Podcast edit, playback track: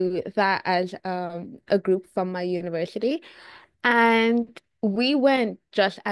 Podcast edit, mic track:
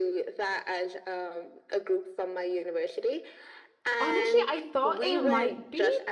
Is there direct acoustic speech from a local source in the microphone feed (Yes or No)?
Yes